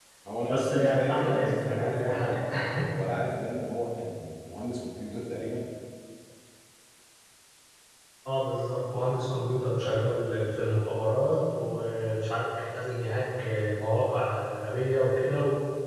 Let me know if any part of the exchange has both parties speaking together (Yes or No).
Yes